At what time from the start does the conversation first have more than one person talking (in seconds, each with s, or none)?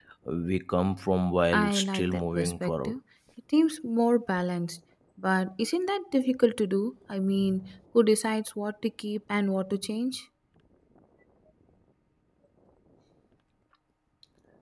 1.5 s